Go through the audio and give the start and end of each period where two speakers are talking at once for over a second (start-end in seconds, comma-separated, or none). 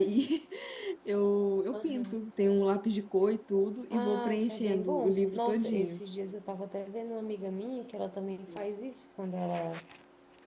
3.9-6.0